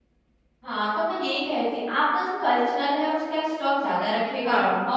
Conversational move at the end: listening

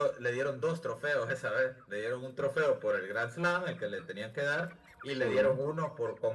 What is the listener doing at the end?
listening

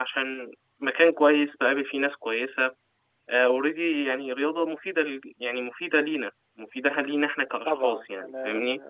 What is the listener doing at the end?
taking over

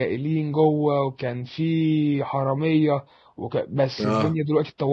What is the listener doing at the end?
listening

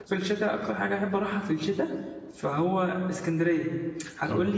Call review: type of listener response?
listening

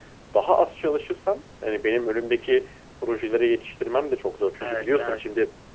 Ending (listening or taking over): listening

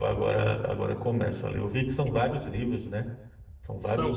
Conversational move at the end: taking over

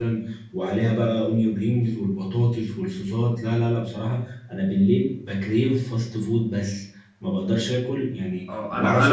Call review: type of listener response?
taking over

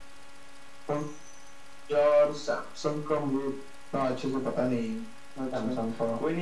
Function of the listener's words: taking over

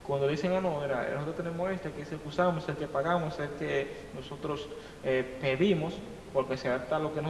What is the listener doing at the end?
listening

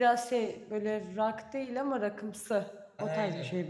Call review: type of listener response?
taking over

